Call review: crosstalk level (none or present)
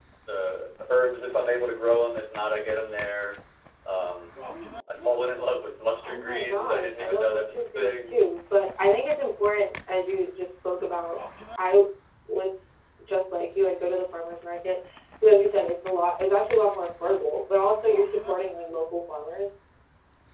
present